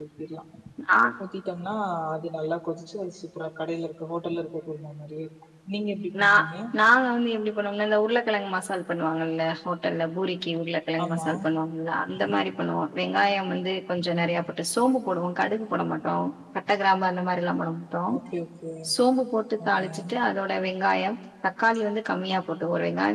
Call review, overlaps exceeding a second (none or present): none